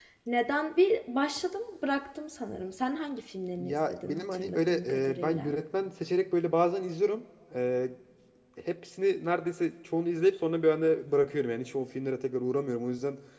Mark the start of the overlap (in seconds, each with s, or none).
3.6 s